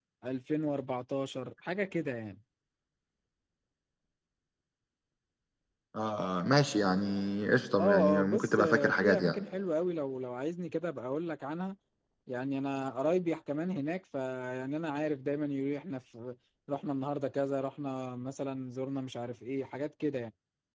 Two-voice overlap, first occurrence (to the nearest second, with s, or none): 8 s